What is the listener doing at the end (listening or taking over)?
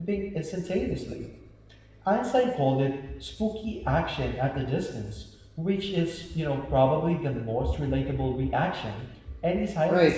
taking over